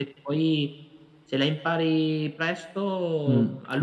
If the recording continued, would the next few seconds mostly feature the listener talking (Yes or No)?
Yes